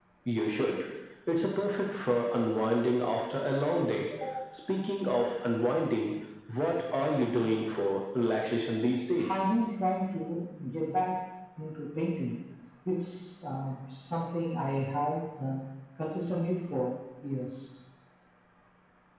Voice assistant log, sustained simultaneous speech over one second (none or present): none